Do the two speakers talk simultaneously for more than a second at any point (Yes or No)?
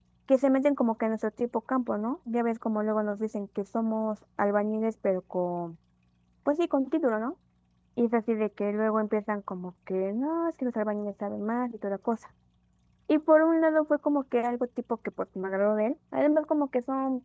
No